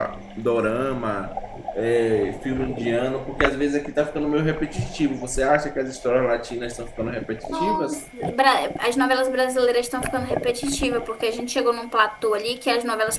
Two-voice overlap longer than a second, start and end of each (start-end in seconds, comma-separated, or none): none